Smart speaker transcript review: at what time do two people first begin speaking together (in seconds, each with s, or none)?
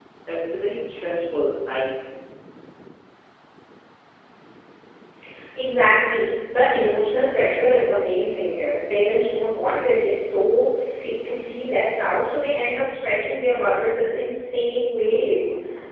none